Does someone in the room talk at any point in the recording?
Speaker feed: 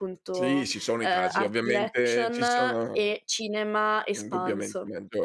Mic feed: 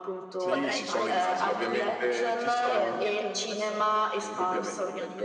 Yes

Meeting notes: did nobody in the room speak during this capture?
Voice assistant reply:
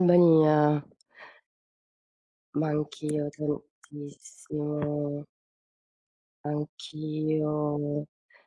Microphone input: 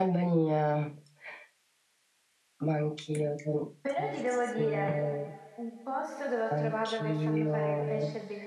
No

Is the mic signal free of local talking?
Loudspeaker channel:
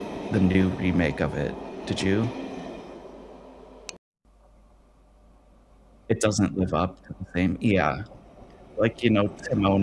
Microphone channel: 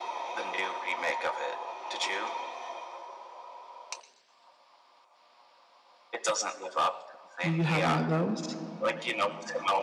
No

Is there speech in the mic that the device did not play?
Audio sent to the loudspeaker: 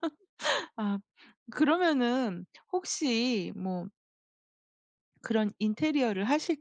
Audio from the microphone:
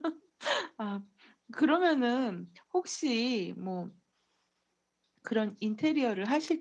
No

